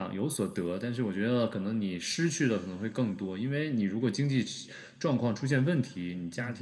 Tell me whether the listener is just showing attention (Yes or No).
Yes